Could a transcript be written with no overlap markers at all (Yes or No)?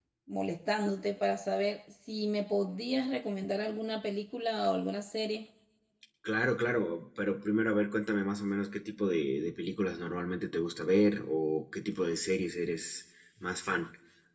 Yes